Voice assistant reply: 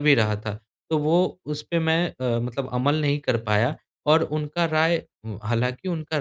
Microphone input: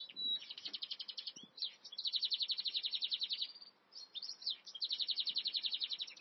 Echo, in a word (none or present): none